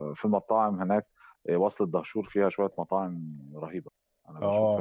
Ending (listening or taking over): taking over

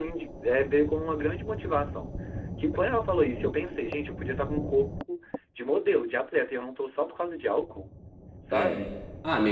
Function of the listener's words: taking over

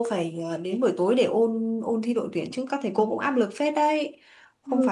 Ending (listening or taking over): listening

